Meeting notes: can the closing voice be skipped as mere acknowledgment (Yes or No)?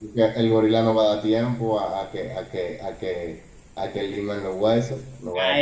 No